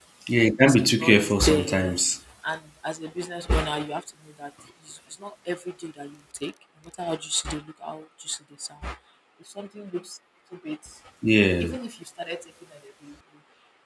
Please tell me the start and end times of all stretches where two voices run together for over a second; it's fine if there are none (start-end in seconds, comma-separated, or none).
0.6-2.0